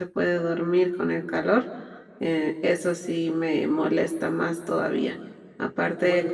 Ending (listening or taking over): listening